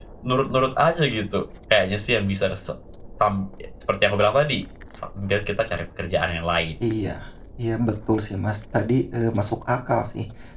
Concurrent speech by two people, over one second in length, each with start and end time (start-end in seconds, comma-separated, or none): none